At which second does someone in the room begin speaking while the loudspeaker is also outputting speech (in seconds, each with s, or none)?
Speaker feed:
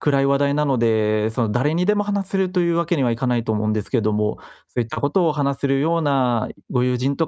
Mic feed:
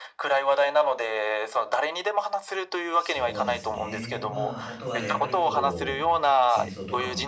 3.0 s